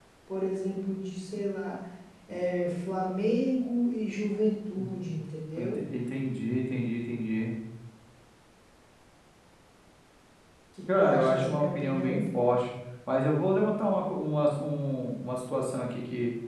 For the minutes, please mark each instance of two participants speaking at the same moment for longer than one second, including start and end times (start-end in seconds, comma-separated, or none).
11.0-12.4